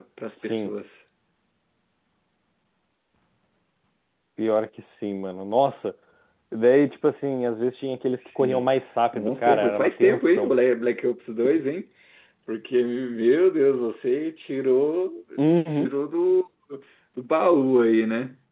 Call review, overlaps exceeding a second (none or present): present